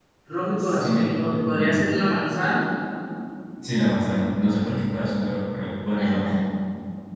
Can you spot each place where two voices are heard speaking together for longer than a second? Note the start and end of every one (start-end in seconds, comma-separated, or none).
0.6-1.9